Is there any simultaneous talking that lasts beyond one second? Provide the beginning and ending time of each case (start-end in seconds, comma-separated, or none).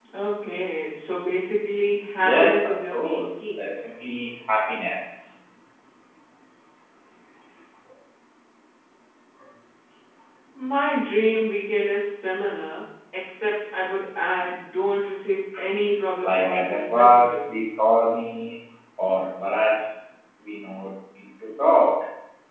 2.2-3.7, 16.2-17.5